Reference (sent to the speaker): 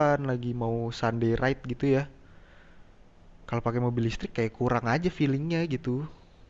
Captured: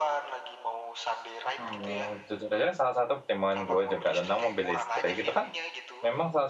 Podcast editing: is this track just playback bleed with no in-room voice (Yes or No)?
No